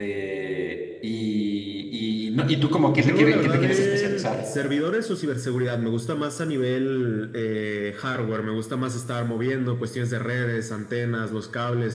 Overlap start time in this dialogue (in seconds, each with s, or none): 2.9 s